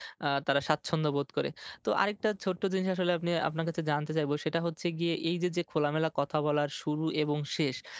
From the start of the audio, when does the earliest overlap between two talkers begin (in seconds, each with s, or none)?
none